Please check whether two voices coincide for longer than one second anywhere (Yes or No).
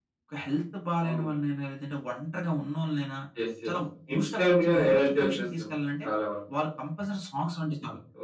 Yes